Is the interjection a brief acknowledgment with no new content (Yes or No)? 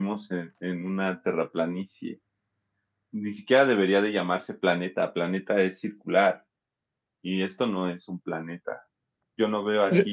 Yes